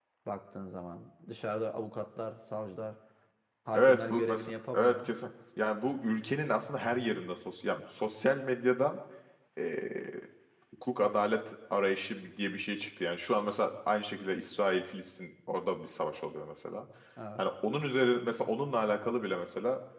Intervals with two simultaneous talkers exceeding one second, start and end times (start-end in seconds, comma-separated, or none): 3.7-5.1